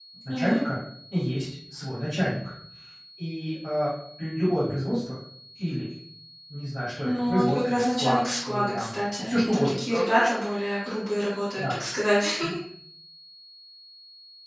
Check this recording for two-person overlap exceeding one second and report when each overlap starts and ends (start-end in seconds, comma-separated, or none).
7.0-10.3